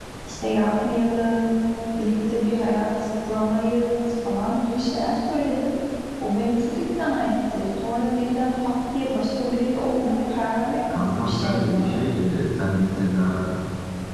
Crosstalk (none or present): present